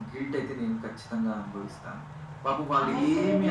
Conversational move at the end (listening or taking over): taking over